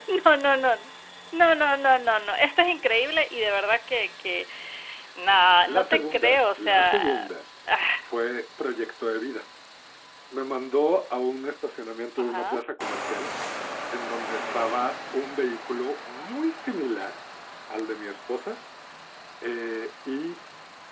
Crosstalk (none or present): present